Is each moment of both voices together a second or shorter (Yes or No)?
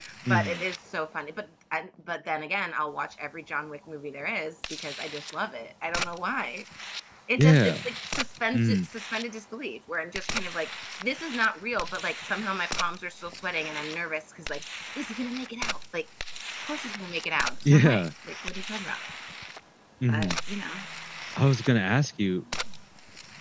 Yes